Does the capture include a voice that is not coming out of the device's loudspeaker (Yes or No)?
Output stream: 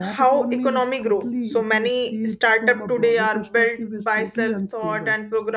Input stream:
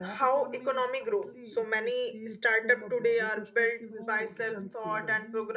Yes